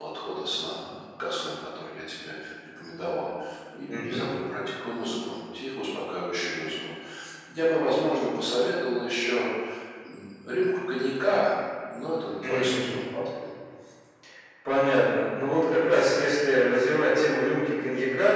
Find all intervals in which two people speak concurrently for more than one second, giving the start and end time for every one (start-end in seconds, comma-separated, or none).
none